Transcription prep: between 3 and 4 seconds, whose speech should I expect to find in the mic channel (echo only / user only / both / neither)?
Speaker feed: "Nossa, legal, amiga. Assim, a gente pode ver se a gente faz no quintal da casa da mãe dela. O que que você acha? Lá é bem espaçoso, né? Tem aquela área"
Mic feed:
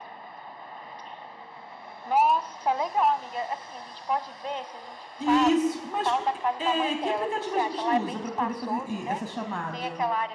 echo only